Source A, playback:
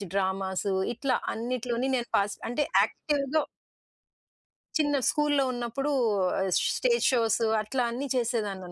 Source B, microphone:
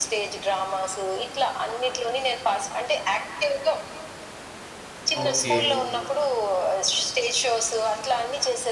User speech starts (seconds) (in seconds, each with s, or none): 5.2 s